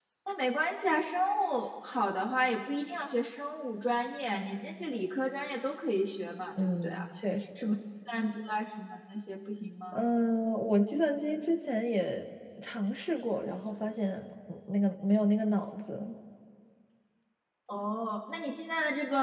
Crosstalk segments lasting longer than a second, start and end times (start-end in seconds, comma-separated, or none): none